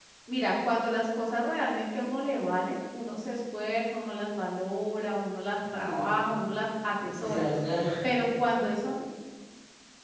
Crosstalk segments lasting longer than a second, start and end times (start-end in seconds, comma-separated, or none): none